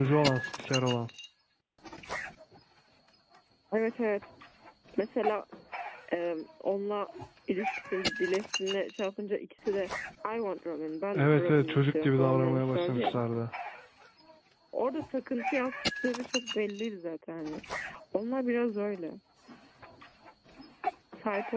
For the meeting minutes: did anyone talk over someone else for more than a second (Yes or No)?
Yes